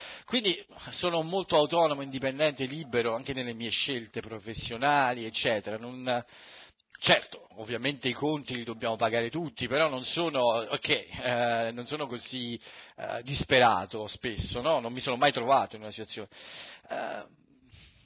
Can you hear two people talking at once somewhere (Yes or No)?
No